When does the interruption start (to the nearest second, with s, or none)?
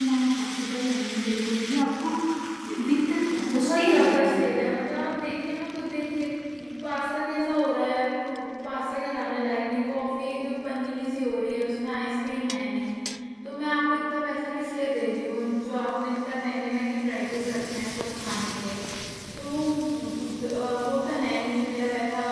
3 s